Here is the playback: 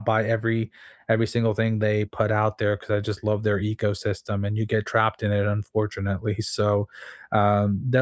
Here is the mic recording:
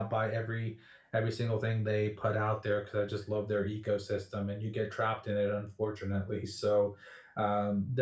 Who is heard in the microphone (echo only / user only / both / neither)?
echo only